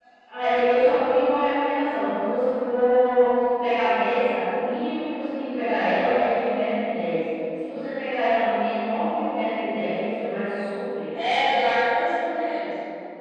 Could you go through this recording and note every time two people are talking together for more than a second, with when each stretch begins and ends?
none

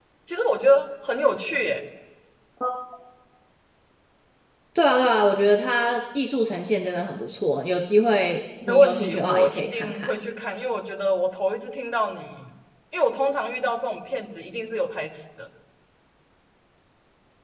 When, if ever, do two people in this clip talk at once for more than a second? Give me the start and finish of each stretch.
8.7-10.1

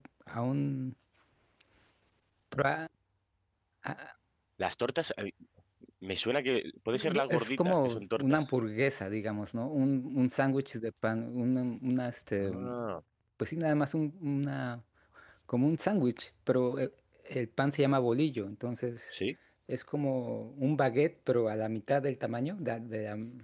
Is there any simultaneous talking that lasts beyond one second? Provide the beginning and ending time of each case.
6.9-8.5

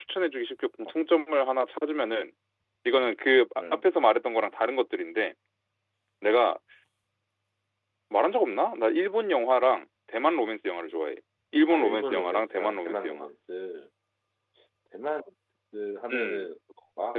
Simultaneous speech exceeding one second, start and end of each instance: 11.7-13.3

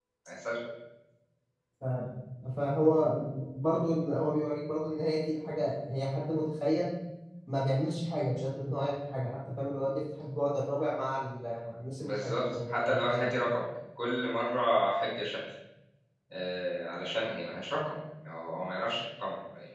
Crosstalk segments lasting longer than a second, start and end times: 12.0-13.3

